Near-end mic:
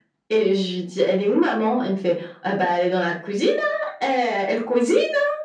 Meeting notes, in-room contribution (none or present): none